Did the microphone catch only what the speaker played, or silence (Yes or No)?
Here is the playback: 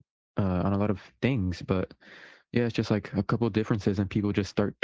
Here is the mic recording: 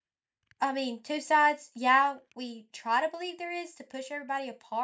No